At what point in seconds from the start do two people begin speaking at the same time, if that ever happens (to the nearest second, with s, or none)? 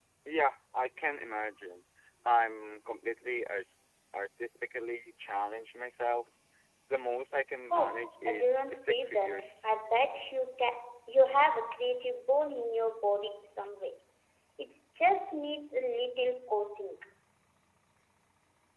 8 s